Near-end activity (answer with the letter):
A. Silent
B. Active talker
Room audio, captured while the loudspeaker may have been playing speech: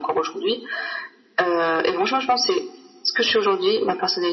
A